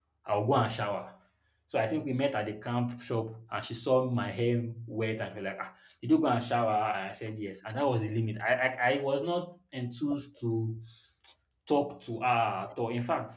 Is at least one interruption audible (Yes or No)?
No